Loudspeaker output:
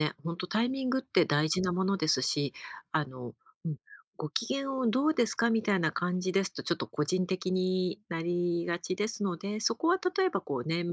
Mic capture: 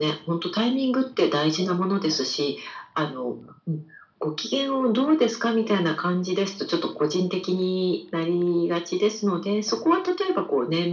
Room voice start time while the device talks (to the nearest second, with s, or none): none